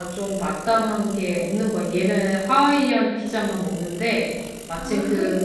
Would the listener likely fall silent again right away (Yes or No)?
Yes